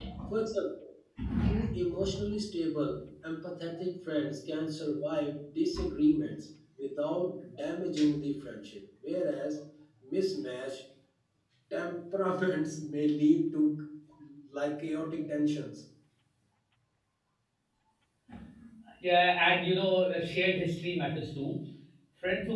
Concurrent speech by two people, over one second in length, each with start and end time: none

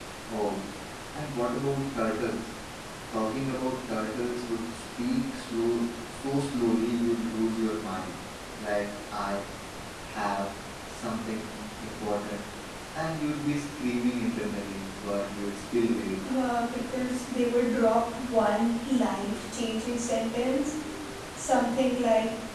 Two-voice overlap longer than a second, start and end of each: none

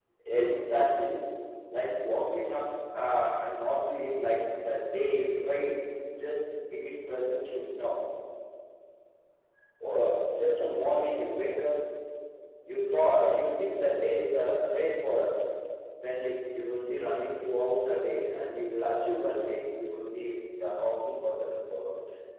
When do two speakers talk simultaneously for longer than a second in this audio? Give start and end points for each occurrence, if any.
none

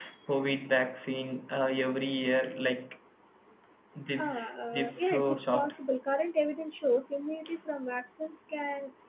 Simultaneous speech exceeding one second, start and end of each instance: 4.2-5.7

